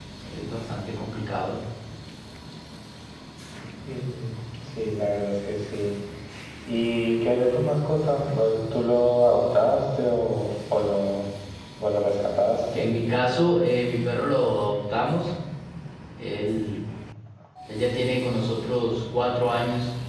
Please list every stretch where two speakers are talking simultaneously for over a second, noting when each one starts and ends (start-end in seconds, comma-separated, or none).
none